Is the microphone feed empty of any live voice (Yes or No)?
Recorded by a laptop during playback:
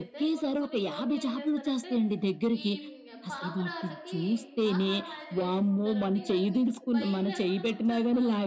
No